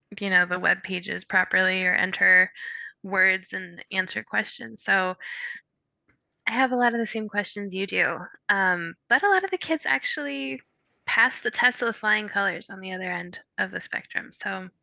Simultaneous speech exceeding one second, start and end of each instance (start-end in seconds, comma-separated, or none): none